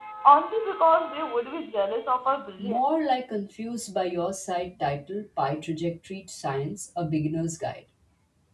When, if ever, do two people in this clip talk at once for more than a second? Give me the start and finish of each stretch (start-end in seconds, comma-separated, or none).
none